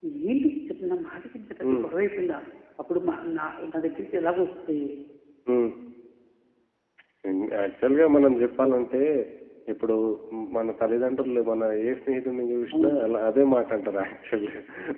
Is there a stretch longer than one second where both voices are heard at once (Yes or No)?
No